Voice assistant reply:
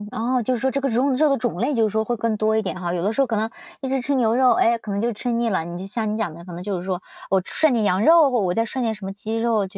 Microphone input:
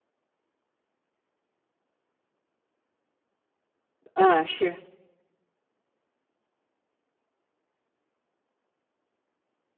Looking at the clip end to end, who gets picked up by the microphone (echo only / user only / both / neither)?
user only